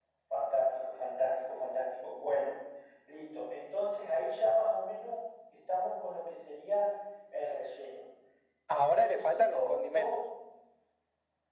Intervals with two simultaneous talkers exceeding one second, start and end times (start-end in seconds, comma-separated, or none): 8.8-10.2